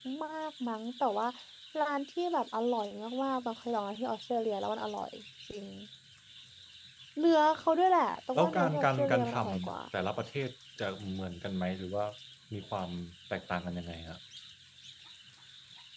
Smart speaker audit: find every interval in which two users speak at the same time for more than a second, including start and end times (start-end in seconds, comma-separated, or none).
8.4-9.8